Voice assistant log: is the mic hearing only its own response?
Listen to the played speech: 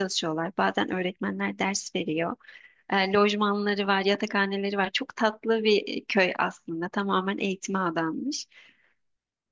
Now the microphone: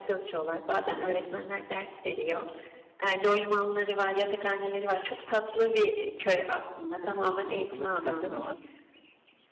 No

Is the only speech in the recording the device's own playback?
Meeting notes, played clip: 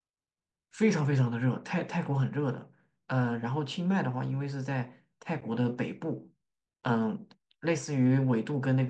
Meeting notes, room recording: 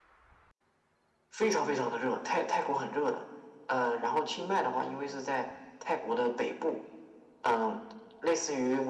Yes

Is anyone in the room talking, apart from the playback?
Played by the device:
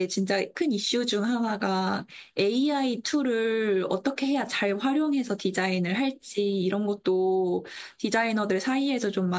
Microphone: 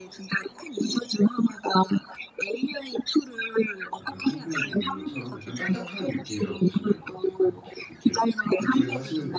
Yes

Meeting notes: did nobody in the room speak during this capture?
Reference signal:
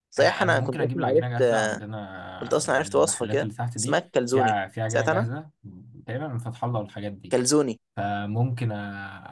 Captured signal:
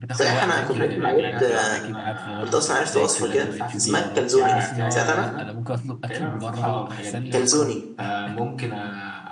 No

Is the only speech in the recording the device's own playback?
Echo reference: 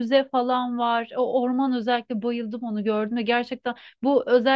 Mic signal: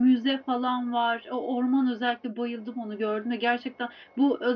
Yes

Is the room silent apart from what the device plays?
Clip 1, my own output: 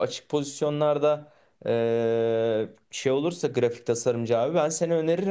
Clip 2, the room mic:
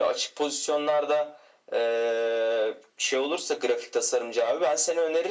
Yes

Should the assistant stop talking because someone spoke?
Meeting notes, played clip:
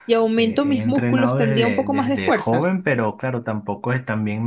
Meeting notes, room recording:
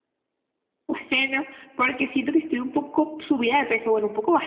Yes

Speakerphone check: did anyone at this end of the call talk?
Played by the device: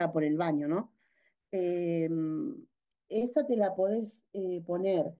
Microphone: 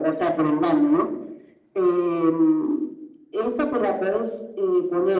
No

